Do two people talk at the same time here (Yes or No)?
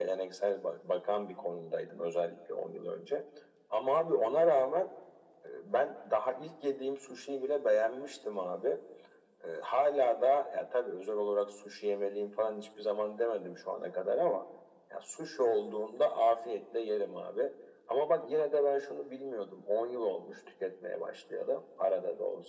No